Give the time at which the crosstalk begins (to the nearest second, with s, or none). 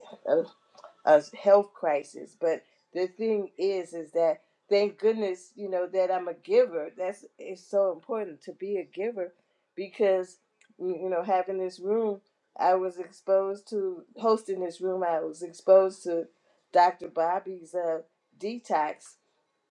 none